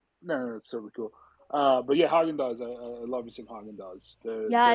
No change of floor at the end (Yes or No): No